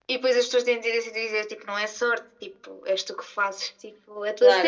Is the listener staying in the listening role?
No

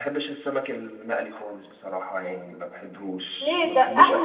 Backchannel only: No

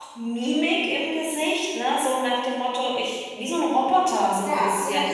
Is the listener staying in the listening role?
No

